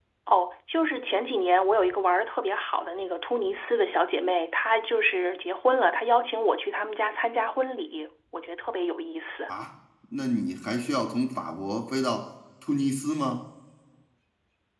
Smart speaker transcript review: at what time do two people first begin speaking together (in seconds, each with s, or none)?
none